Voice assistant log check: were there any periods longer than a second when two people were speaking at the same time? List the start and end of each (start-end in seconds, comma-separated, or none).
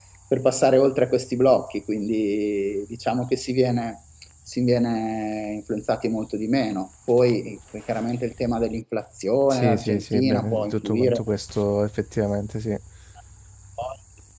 9.5-11.2